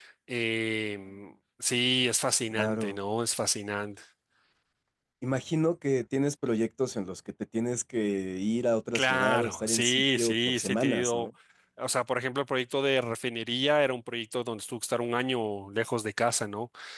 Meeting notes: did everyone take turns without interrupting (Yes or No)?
No